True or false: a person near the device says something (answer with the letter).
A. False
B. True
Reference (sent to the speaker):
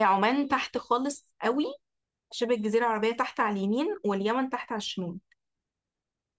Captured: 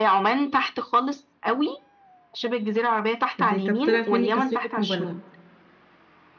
B